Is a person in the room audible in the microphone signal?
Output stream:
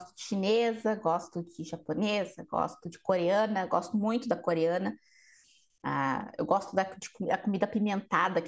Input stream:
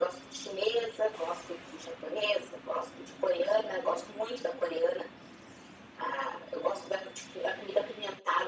No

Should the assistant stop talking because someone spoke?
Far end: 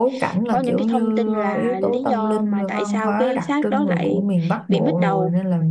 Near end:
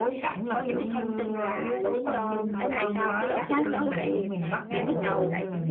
Yes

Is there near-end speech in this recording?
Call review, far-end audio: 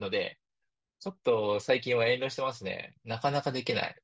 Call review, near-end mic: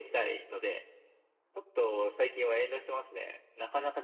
No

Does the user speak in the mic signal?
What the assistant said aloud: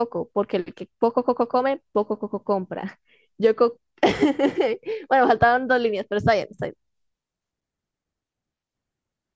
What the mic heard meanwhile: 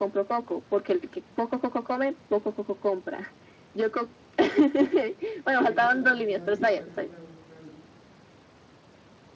Yes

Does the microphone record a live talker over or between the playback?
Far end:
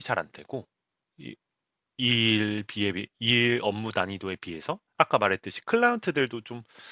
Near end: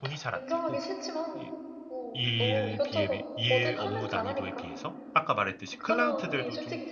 Yes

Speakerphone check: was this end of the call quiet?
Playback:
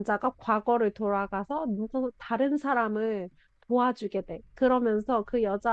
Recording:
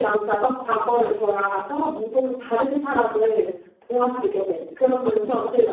Yes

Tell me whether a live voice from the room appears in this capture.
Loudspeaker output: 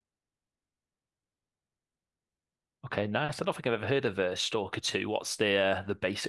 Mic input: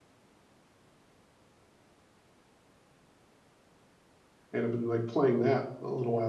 Yes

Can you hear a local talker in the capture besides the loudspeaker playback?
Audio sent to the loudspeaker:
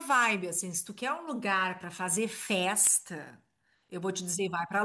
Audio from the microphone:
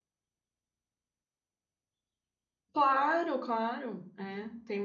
Yes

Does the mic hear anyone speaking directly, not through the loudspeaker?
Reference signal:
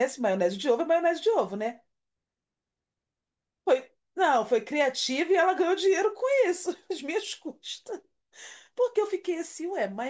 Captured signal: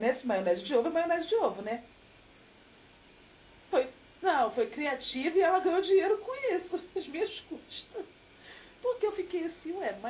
No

